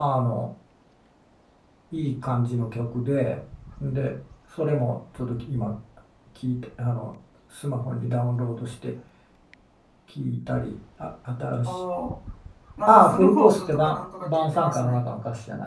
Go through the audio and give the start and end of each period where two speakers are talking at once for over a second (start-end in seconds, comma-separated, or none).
12.9-15.0